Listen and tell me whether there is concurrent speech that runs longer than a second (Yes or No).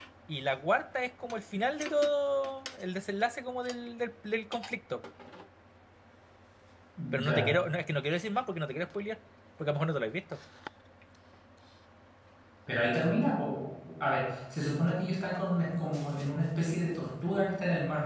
No